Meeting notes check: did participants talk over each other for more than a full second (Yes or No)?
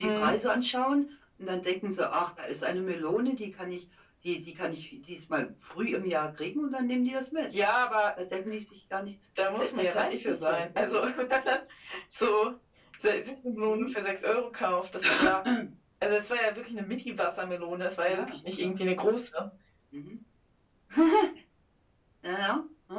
Yes